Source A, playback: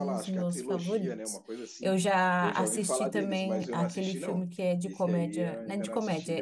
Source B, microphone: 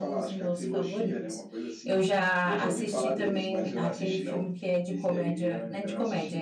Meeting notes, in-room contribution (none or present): none